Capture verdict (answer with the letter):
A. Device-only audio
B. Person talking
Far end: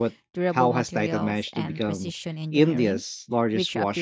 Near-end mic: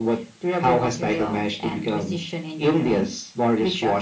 A